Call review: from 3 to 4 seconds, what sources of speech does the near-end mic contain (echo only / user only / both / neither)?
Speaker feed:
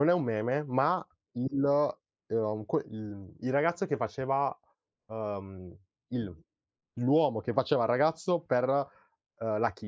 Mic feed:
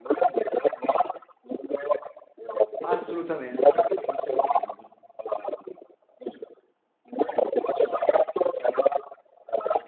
both